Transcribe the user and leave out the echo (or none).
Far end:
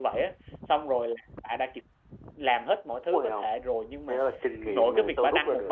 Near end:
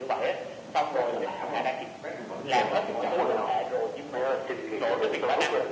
Brad mà lạ phải không Brad mà vẫn vợ vợ chồng chồng phải không